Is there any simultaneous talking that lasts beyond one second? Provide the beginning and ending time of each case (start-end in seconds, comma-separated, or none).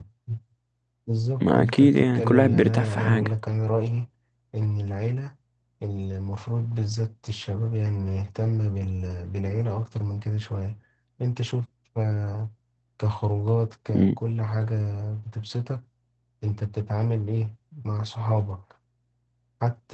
1.4-3.3